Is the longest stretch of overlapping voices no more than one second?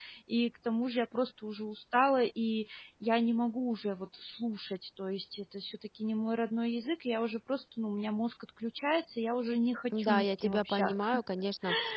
No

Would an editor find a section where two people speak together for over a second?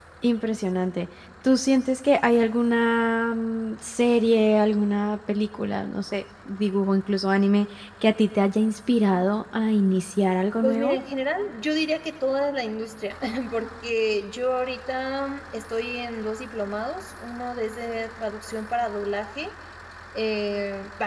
No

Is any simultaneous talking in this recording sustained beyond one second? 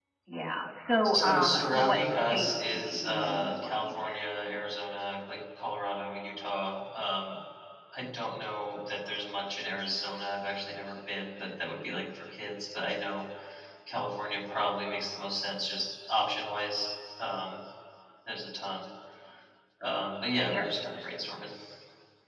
Yes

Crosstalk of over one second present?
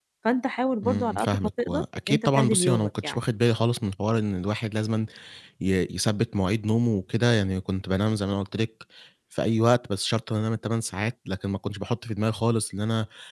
Yes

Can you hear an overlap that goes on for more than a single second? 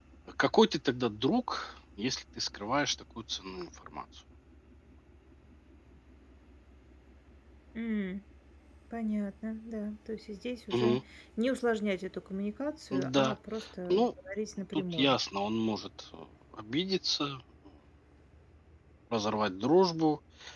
No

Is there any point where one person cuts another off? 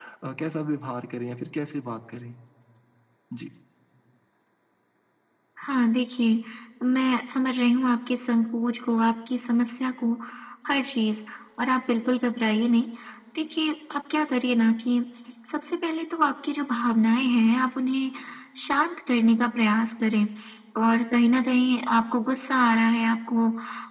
No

